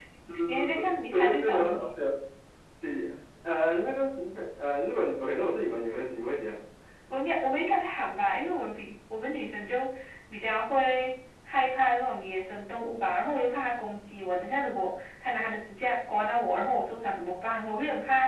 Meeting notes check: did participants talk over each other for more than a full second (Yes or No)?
Yes